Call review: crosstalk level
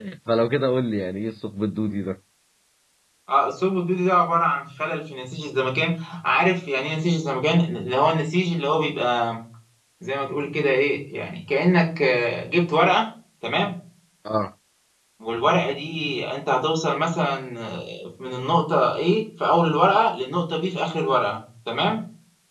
none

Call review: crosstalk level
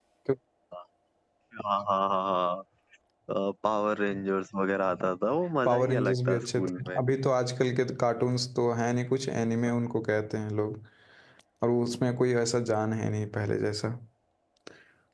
present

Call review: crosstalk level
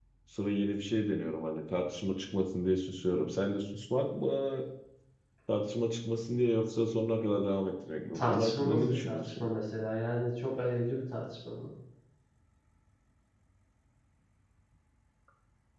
present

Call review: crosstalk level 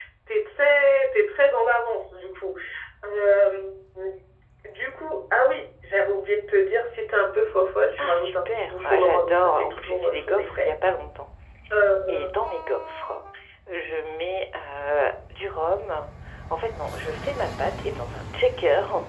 present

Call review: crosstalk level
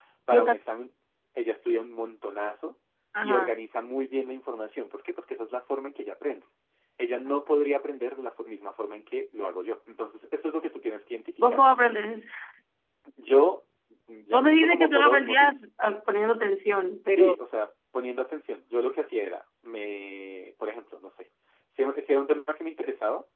present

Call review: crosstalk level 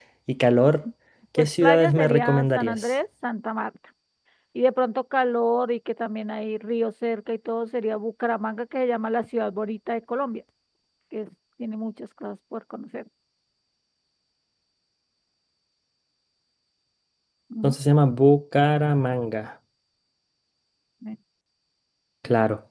present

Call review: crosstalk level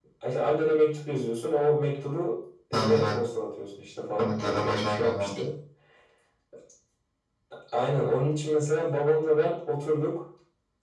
present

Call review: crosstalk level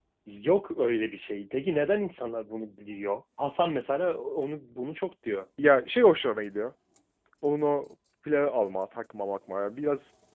none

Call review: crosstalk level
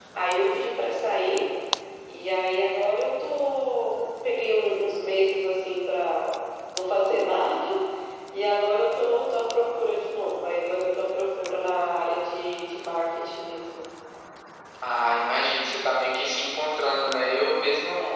none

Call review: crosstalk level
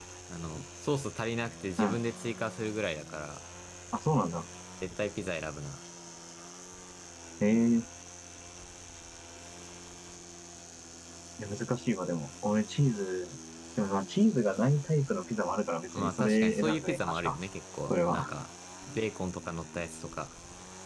present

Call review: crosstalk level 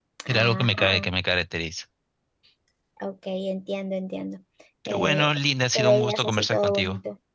present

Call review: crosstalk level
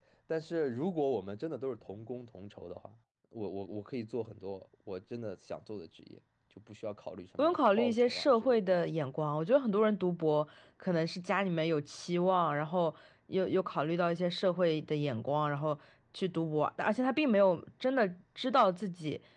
present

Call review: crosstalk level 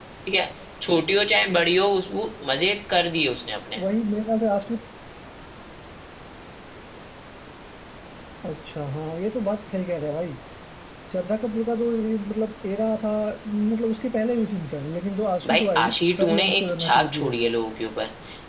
present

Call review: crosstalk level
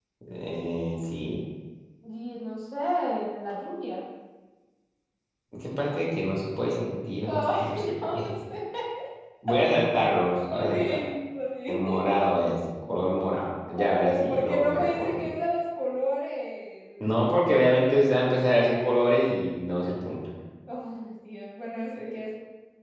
present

